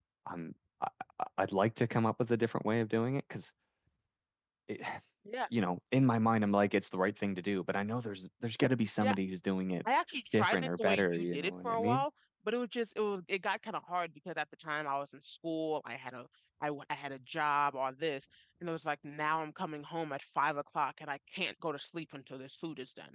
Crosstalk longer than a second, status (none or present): present